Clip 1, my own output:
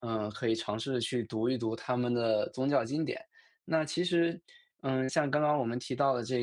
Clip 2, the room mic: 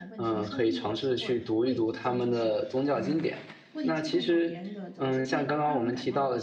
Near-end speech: present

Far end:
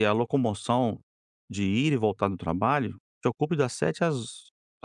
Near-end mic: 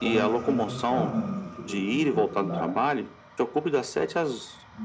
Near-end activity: present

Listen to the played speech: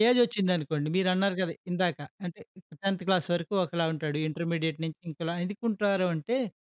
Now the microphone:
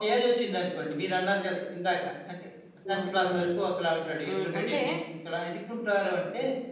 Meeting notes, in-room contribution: present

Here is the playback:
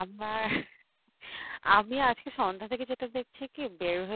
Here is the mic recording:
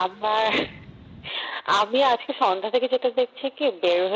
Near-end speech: none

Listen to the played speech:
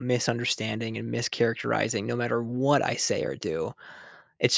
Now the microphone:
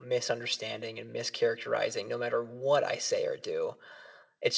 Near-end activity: none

